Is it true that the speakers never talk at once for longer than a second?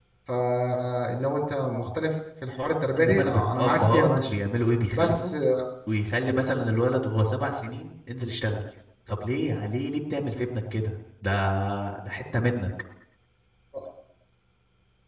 No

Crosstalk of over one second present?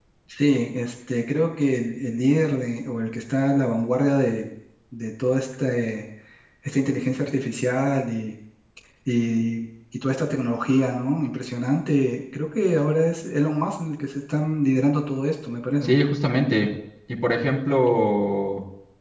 No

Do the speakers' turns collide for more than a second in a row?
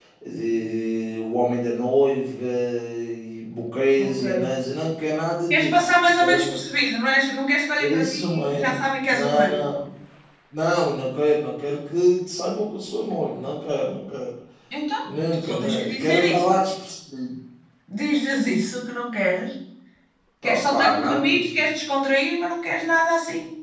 Yes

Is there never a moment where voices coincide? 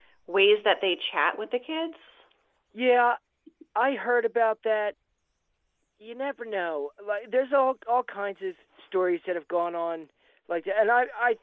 Yes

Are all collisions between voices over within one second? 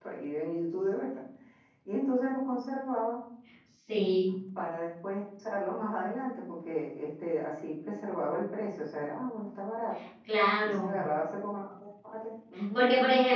Yes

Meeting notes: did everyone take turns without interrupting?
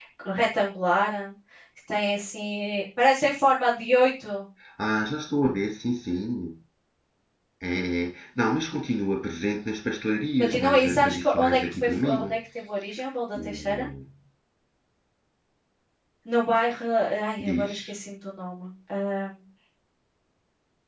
No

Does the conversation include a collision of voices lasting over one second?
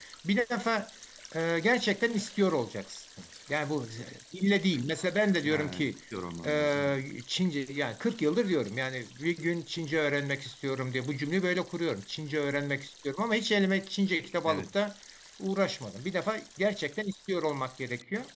No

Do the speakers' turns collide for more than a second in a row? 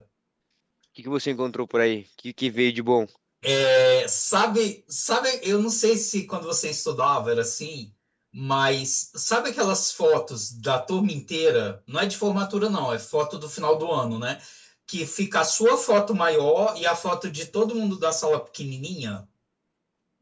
No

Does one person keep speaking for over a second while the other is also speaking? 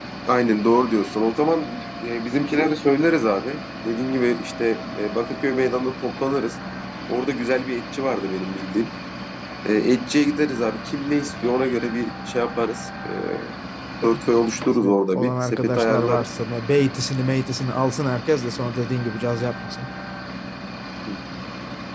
Yes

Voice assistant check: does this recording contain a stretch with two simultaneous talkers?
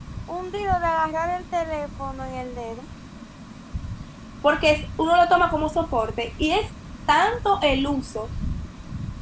No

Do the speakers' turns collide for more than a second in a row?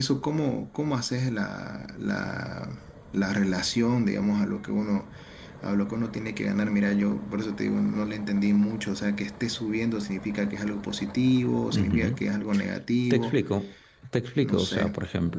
No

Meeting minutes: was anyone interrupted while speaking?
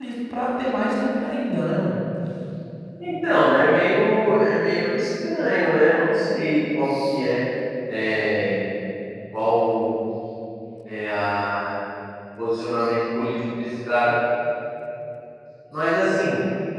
No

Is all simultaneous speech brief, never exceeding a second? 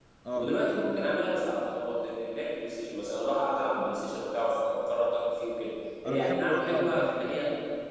No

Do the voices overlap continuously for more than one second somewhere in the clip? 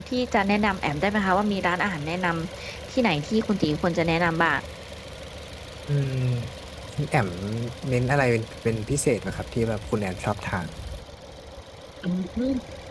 No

